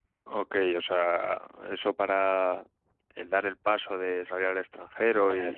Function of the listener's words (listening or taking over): listening